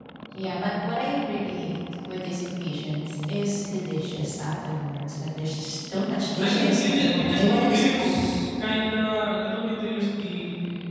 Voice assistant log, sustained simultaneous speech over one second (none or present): present